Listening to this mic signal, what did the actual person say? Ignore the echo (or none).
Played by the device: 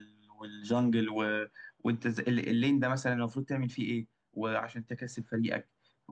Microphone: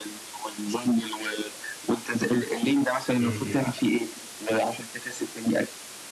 م- م.